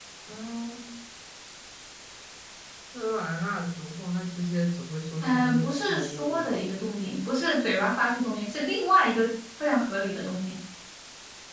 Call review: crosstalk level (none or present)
present